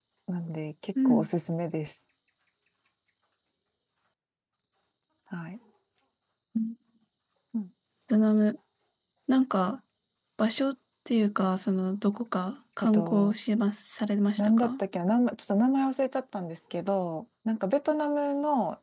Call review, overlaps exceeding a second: none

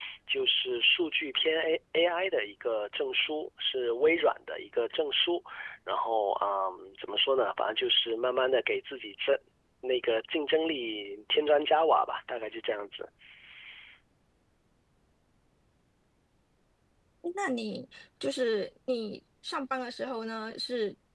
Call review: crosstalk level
none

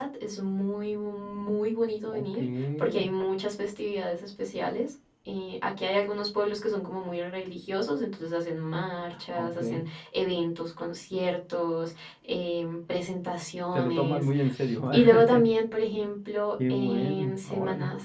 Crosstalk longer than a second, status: present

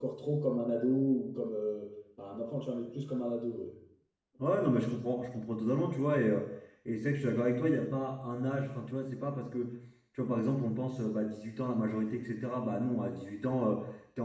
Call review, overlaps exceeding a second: none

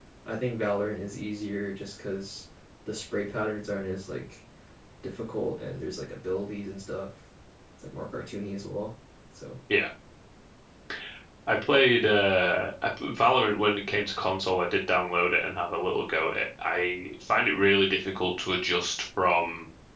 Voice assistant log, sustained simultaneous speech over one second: none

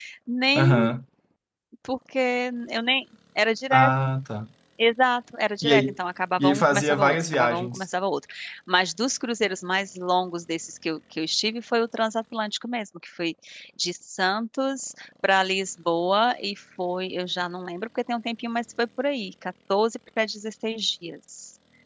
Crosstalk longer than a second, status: present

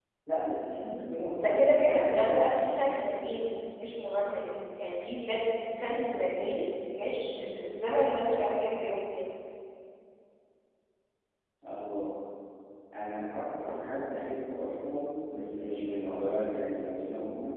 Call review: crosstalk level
present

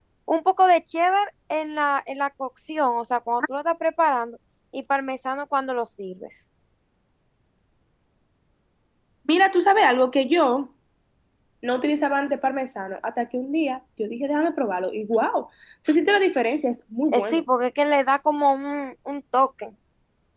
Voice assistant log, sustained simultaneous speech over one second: none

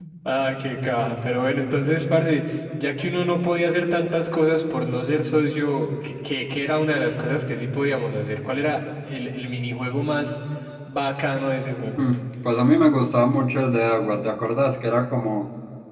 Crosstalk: none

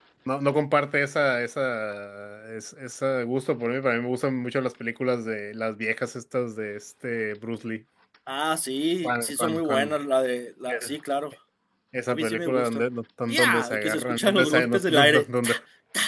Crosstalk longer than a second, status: present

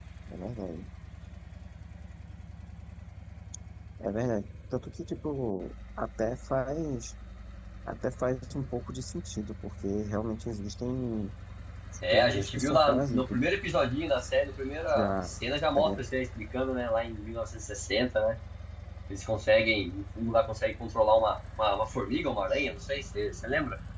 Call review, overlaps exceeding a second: present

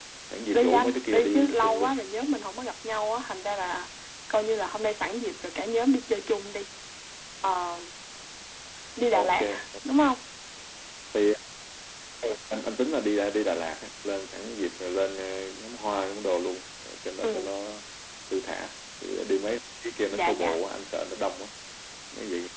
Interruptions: present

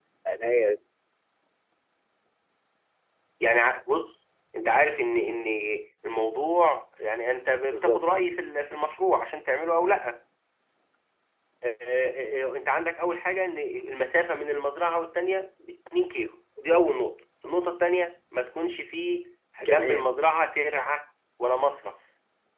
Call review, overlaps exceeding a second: none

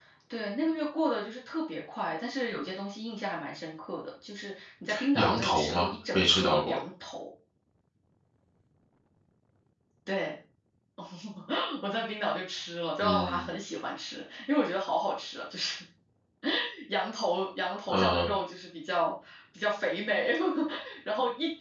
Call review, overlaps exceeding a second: present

